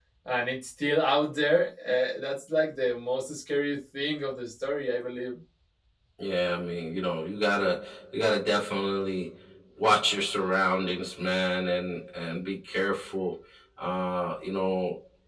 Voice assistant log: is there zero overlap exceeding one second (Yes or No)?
Yes